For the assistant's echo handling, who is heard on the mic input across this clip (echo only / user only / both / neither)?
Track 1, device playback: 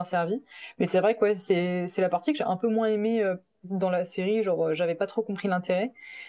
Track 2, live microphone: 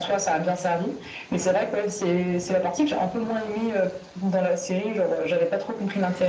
echo only